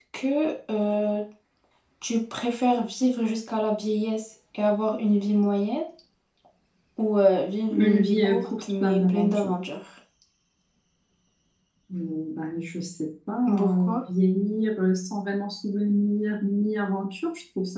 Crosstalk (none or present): present